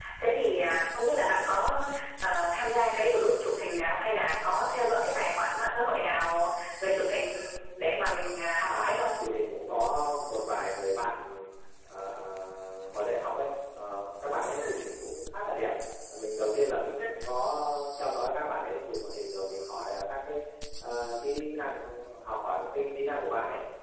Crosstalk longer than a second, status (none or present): none